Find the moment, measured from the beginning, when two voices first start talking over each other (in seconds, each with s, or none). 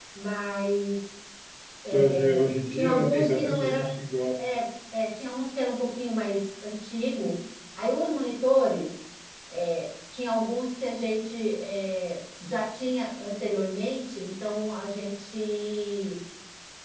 1.9 s